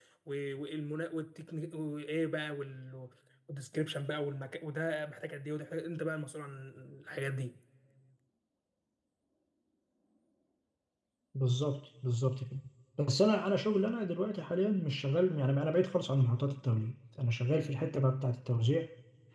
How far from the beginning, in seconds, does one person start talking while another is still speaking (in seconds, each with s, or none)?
none